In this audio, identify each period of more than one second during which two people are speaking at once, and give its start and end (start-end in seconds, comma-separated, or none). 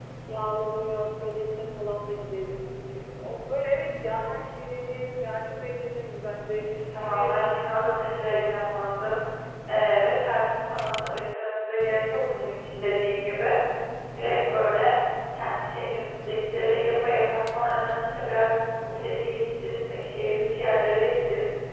7.0-8.6